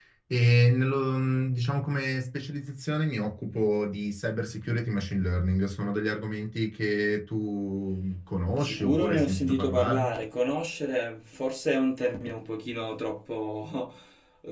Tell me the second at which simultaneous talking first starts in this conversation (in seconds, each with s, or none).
8.5 s